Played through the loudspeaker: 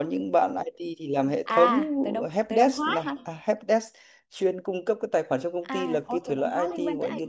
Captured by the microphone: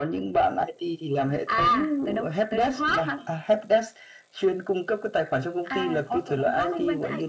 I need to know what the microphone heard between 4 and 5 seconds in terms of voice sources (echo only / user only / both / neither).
echo only